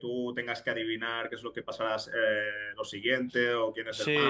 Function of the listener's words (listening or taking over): taking over